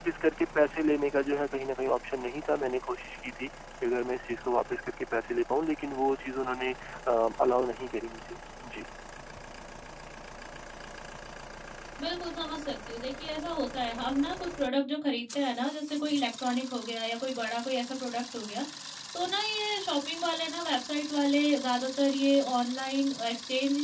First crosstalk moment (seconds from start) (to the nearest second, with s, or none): none